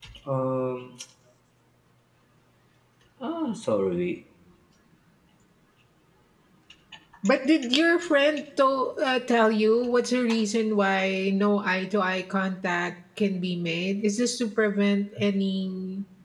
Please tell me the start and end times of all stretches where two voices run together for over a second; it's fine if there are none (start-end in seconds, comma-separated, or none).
none